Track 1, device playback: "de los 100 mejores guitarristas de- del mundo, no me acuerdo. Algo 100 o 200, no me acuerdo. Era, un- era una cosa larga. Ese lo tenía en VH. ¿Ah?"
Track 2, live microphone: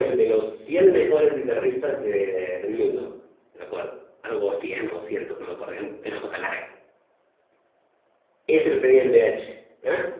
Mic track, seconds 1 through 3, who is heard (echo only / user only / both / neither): echo only